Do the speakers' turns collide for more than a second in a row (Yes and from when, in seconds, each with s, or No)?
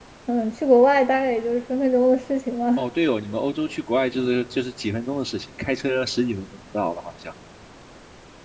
No